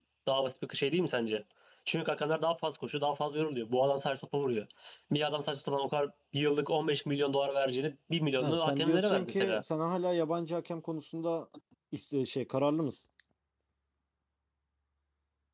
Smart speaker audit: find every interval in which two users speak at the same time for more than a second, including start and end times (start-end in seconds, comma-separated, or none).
8.4-9.6